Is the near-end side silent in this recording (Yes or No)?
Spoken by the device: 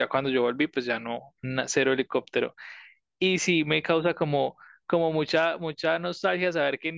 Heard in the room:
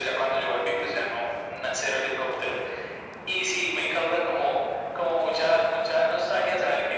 Yes